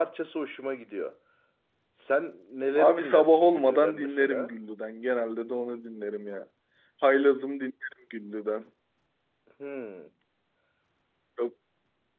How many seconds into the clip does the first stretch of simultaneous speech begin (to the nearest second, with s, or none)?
3 s